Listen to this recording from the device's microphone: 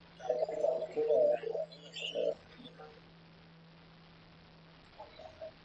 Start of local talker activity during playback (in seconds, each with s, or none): none